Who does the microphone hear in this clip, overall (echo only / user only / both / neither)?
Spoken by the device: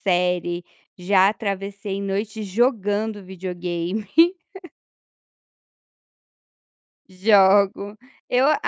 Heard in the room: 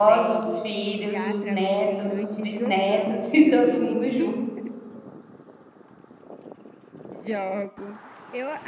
both